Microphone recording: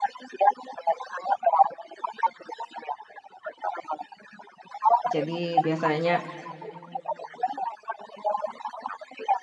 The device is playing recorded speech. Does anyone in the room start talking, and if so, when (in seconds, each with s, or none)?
5.1 s